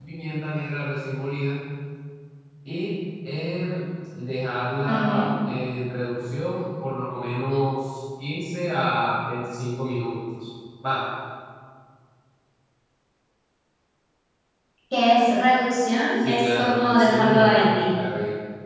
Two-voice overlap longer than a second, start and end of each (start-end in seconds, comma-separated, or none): 16.2-17.8